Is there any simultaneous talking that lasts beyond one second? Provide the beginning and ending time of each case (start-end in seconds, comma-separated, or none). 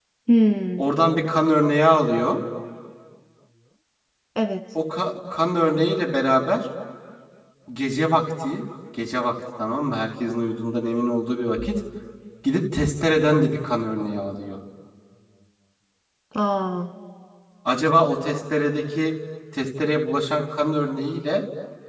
none